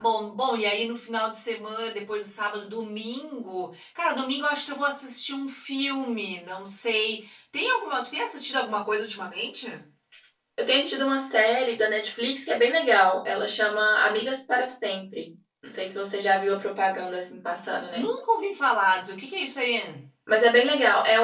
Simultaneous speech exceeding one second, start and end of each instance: none

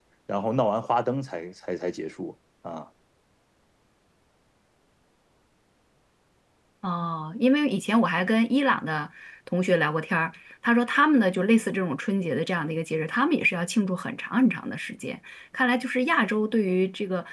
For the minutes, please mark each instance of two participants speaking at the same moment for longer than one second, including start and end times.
none

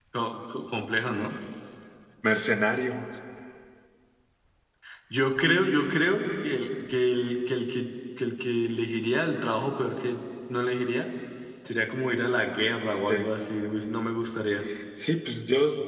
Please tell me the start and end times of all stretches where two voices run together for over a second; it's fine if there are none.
none

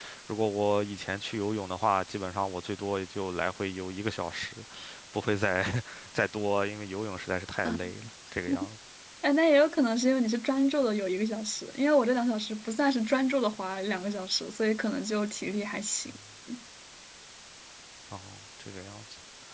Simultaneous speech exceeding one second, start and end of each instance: none

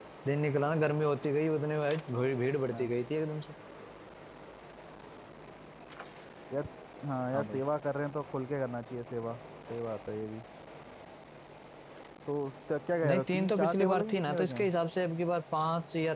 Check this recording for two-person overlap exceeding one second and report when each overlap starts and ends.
13.0-14.6

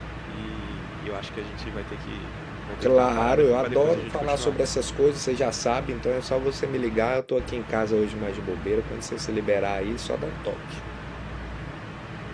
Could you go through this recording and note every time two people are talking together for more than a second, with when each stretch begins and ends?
2.8-4.6

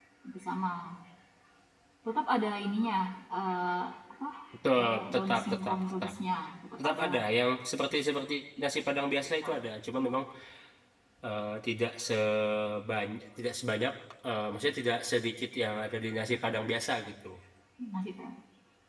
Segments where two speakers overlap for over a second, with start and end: 4.8-6.1

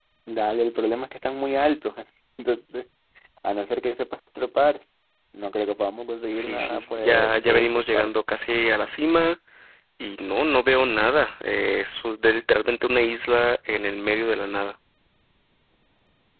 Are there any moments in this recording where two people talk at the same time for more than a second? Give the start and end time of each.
6.3-8.1

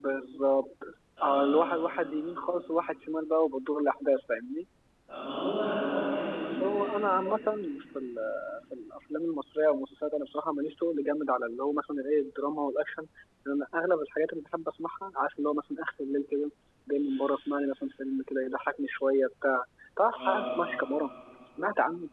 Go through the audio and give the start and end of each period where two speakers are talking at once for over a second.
none

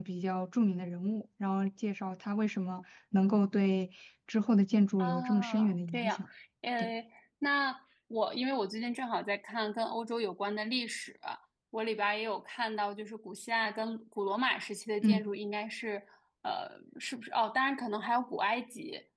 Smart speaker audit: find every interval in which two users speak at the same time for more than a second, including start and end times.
5.0-6.2

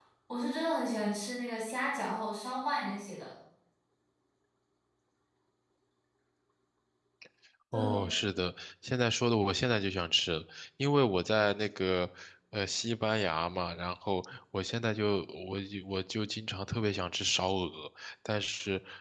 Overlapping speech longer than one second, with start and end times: none

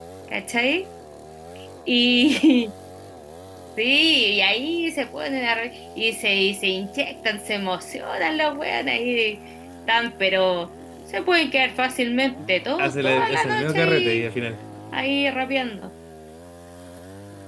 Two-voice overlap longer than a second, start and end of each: 12.8-14.3

